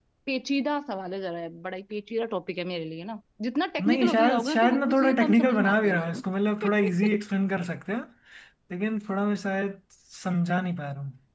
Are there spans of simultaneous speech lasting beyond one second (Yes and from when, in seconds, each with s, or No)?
Yes, from 3.8 s